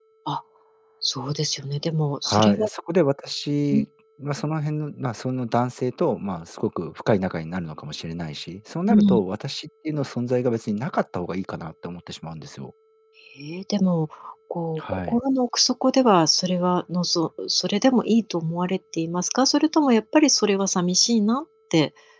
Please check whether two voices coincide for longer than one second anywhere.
No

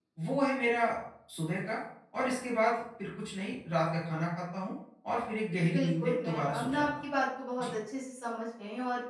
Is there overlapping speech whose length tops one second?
Yes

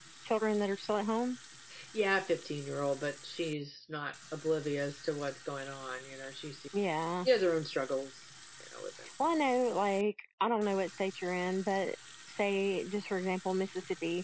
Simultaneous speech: No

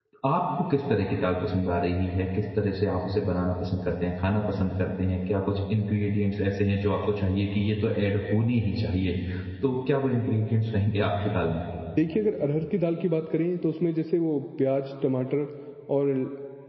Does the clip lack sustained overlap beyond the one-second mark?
Yes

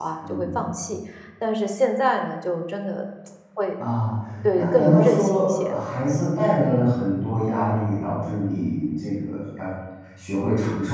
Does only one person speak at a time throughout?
No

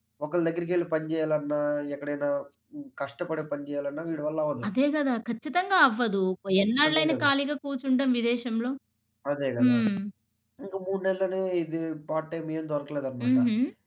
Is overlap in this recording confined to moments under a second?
Yes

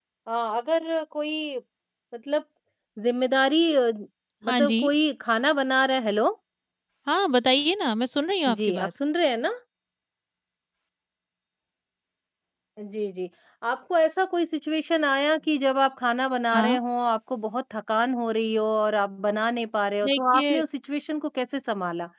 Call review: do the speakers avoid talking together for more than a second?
Yes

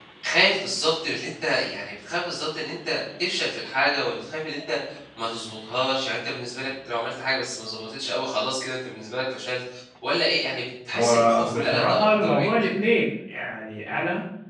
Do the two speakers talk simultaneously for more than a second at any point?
Yes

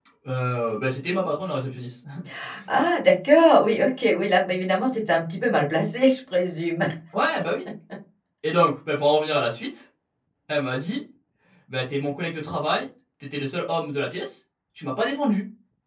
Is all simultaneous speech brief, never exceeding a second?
Yes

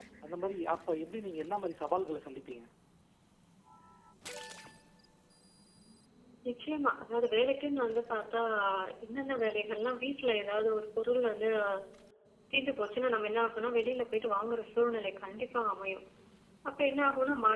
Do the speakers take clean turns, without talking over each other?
Yes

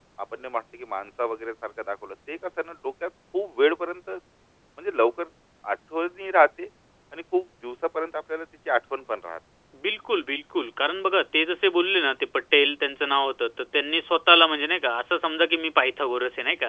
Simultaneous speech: No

